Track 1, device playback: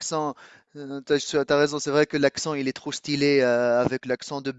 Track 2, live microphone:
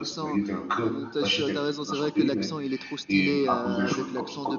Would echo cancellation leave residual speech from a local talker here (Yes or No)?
Yes